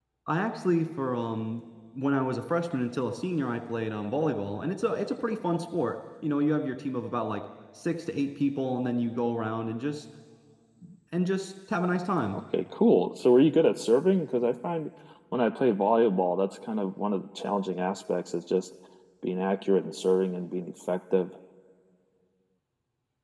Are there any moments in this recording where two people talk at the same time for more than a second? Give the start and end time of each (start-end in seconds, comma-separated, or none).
none